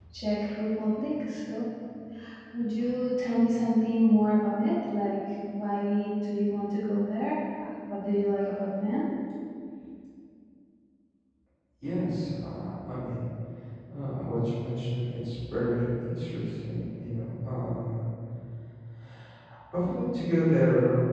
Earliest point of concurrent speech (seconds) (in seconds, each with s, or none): none